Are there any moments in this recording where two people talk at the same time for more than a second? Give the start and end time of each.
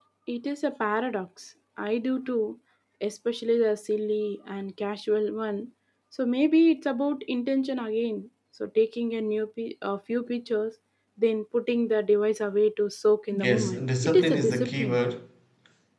13.3-15.0

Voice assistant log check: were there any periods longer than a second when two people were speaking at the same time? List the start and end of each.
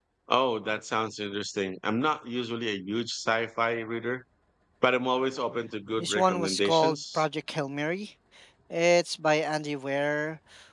6.0-7.2

